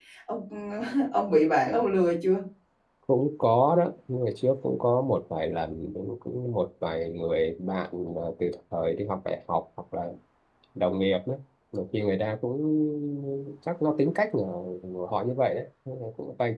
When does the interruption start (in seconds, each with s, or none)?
none